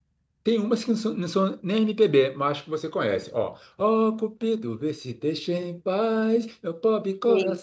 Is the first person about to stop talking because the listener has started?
No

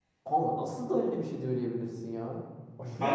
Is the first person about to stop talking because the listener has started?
Yes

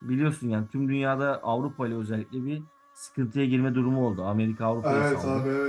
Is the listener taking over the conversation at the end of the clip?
Yes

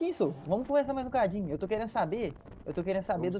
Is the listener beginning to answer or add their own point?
No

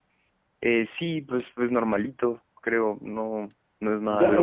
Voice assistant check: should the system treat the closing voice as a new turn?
Yes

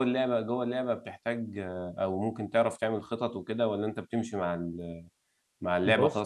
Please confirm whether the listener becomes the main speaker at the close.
No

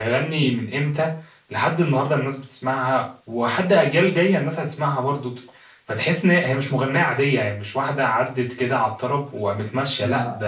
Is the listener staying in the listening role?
Yes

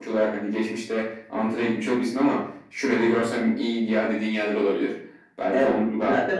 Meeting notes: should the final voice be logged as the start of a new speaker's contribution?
Yes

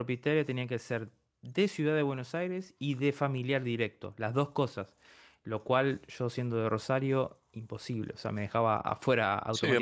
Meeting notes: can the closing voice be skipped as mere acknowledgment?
No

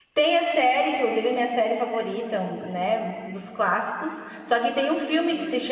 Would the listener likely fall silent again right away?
Yes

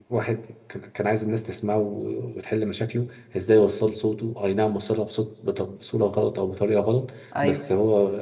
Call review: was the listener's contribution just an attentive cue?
Yes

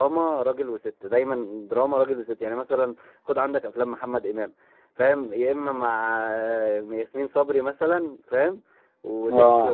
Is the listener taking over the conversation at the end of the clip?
Yes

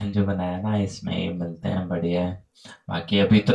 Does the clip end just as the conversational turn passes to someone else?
No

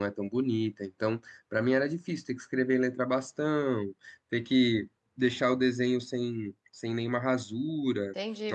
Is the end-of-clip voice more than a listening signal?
Yes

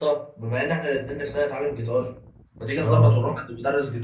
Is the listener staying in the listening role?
Yes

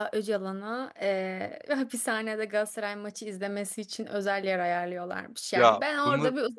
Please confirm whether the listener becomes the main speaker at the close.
No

